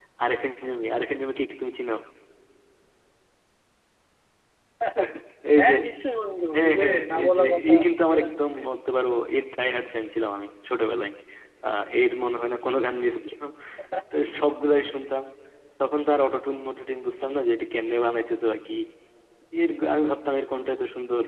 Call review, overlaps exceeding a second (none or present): present